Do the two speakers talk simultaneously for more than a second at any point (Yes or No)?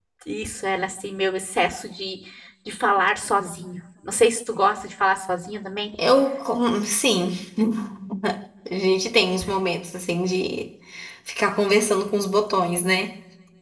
No